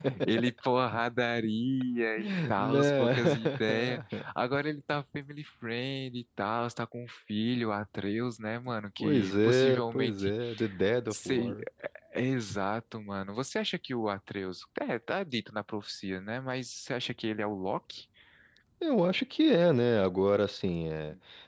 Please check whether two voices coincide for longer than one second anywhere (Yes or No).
Yes